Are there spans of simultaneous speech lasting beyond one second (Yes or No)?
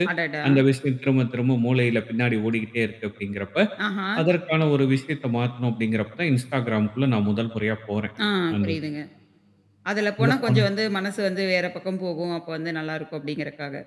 No